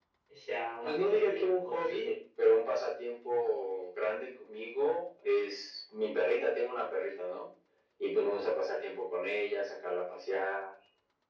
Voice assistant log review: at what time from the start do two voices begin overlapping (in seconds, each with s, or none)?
0.8 s